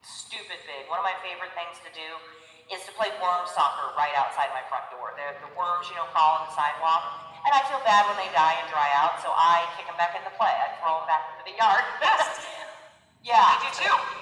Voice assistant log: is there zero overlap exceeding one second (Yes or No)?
Yes